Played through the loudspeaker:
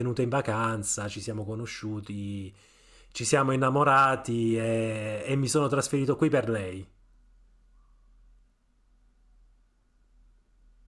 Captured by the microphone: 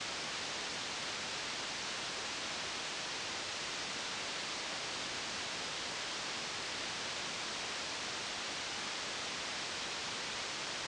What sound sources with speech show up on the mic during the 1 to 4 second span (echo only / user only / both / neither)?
neither